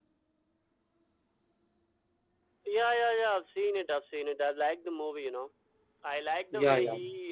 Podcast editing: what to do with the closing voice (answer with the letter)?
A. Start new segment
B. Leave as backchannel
B